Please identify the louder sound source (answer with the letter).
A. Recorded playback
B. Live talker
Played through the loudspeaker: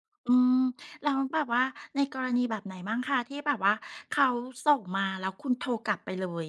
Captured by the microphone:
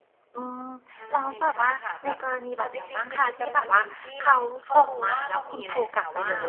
A